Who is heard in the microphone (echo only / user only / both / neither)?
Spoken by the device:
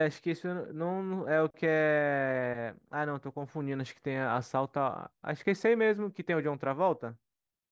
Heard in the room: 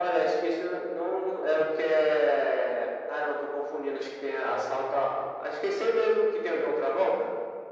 echo only